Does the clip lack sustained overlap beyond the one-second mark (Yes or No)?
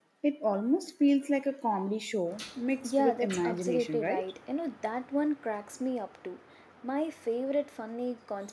No